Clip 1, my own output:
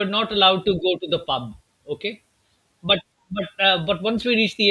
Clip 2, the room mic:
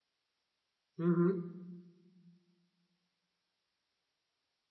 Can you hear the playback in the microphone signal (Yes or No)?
No